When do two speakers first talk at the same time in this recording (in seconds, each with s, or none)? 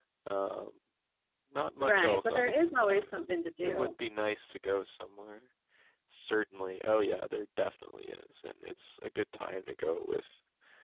1.8 s